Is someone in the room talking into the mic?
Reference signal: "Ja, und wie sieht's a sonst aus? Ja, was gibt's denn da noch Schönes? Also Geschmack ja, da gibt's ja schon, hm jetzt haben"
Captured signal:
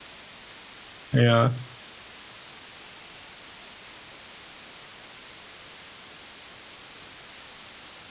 Yes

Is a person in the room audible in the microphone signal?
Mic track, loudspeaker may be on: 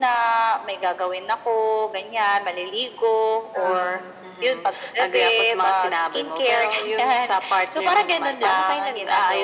Yes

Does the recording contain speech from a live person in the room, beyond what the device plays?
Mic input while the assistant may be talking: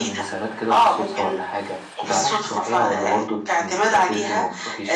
Yes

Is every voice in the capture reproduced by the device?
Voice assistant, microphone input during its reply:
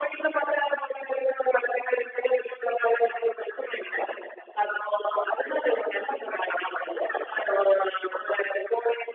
Yes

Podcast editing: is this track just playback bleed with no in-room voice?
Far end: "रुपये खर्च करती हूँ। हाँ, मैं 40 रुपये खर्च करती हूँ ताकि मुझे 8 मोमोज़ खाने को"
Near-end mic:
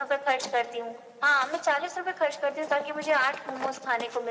Yes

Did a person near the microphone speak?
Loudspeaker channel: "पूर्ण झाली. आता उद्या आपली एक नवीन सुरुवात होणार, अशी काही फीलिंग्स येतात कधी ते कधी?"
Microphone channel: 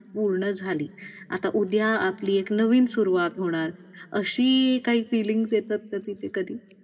No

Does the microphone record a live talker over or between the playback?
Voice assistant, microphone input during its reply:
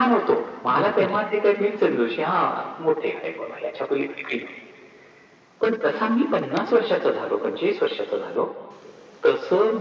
Yes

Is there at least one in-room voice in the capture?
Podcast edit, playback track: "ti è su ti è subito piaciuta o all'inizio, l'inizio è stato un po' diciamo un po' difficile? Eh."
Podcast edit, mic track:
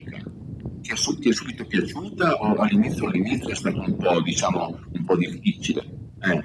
No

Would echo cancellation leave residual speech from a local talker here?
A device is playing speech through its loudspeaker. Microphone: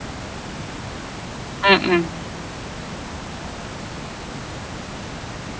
Yes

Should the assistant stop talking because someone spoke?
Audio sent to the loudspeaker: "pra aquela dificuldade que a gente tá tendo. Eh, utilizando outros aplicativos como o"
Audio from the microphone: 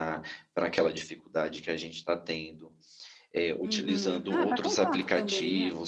Yes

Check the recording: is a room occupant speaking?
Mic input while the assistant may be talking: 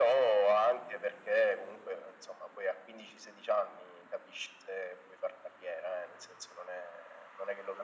No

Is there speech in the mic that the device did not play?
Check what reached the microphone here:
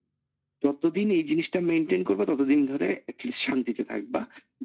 No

